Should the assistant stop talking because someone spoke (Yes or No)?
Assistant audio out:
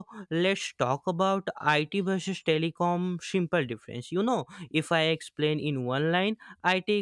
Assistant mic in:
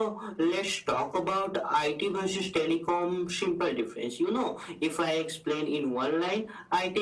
No